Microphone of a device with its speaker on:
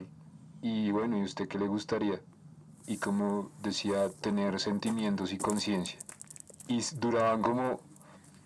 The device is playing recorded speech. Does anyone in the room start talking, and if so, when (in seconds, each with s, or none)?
none